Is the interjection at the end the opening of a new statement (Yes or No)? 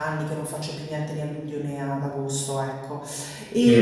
Yes